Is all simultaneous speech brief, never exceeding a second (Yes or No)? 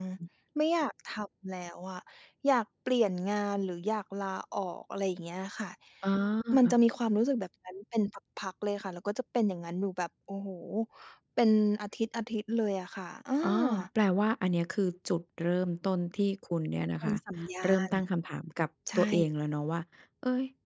Yes